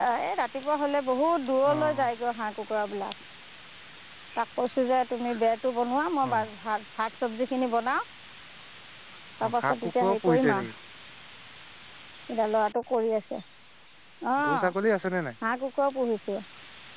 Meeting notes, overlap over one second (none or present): present